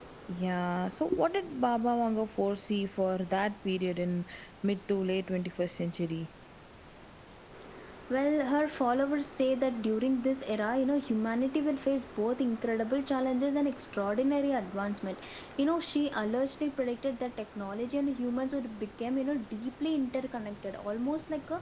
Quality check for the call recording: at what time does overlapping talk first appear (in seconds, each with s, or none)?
none